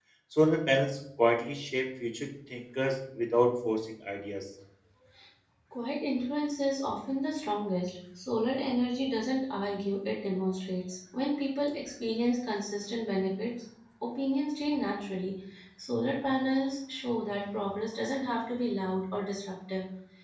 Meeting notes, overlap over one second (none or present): none